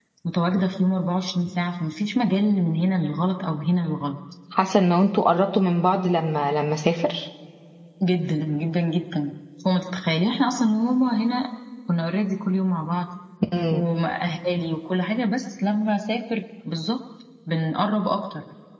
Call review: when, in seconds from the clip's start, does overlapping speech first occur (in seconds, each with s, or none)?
none